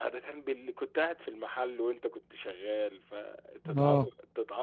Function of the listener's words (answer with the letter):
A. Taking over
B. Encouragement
B